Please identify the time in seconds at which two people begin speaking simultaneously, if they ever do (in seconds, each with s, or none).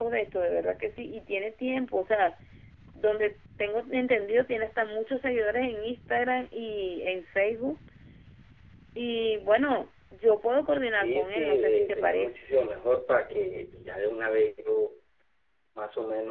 11.0 s